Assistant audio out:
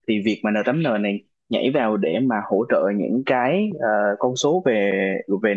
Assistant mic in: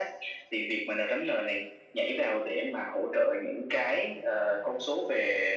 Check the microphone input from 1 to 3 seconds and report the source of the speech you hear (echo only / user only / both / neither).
echo only